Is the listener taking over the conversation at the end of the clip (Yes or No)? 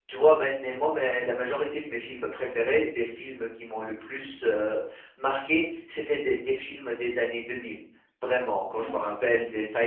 No